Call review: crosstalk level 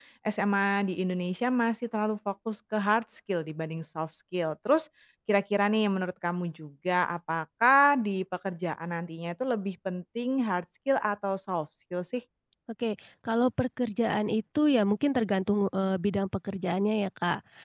none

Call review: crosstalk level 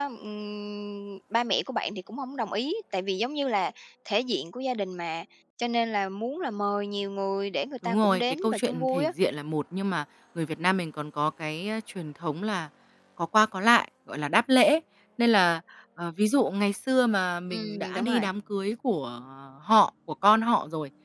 present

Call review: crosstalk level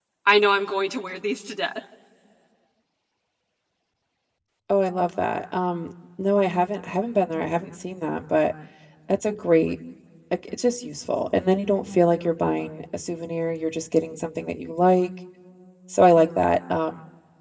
none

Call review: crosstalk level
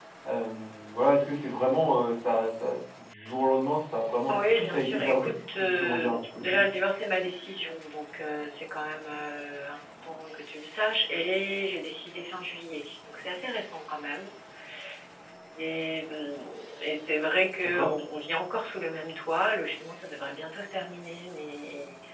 present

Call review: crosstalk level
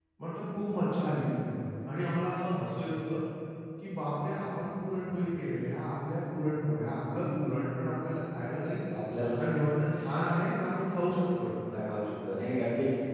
none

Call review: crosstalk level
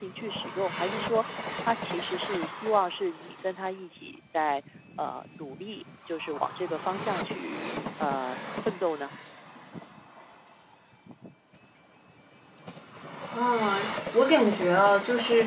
none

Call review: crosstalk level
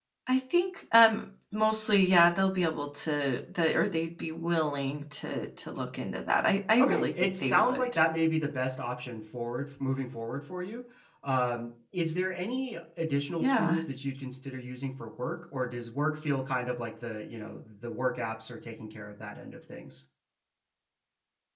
present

